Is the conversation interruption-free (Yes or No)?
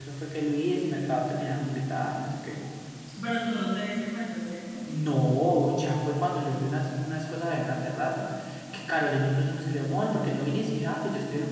Yes